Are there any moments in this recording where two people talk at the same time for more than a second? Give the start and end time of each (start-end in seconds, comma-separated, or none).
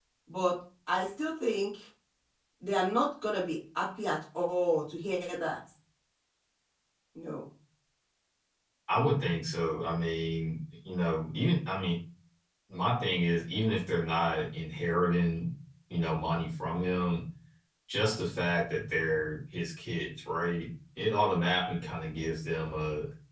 none